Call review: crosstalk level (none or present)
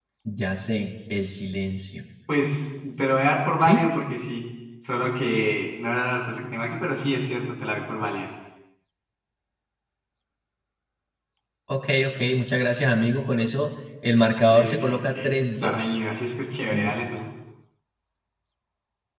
present